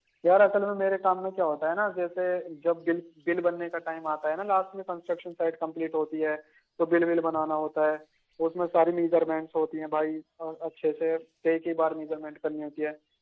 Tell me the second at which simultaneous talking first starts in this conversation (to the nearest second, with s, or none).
none